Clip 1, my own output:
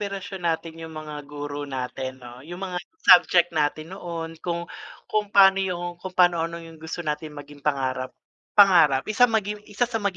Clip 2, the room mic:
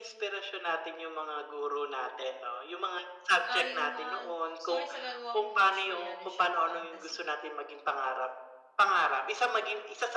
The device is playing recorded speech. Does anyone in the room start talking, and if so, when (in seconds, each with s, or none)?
3.5 s